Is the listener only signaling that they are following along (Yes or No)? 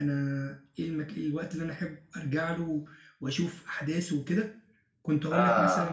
Yes